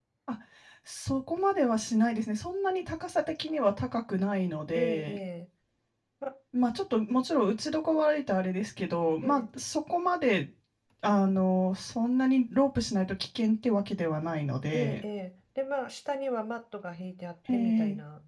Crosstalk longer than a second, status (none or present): none